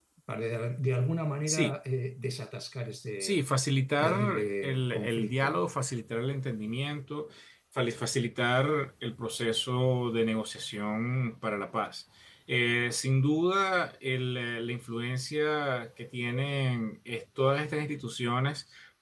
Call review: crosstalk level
present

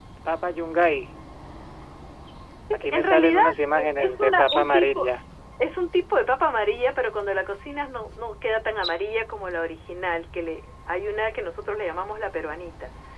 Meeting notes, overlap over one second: present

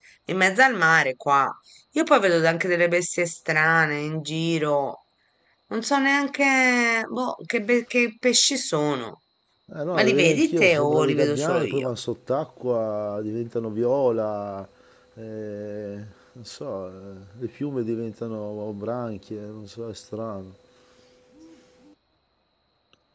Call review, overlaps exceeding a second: present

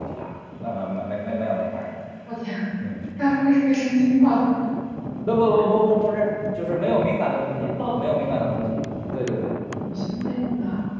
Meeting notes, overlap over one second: none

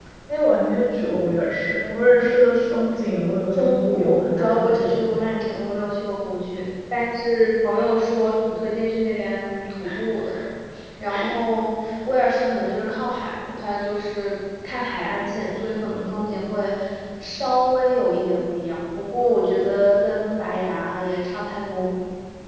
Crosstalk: present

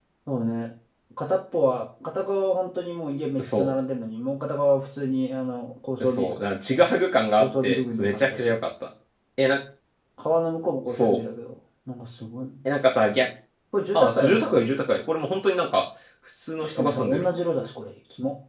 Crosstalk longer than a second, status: present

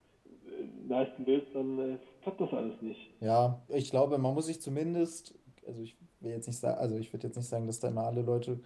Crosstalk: none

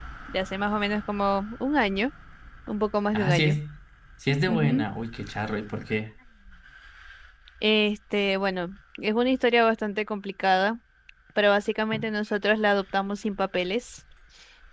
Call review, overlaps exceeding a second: none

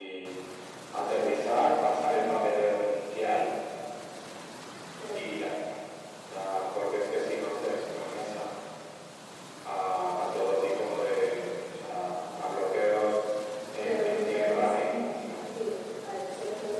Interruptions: present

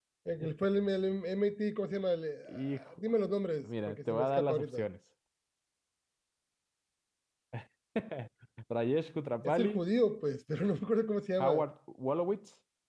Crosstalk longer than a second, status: present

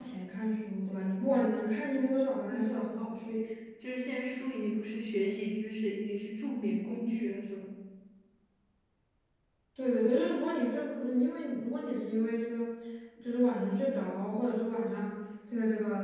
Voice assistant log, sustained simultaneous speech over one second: none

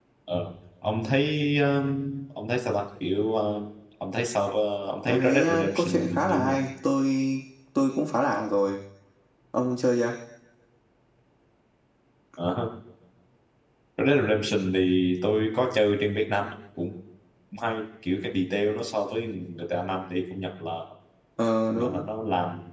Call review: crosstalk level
present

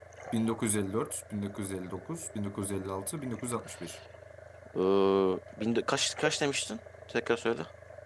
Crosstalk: none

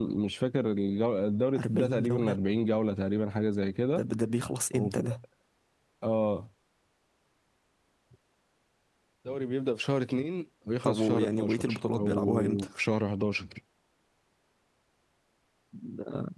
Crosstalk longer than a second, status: present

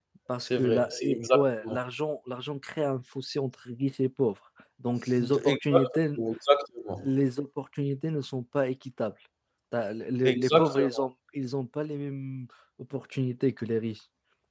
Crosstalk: present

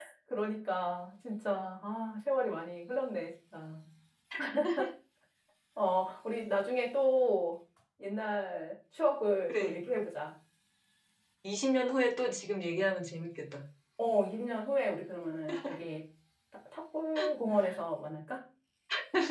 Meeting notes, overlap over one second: none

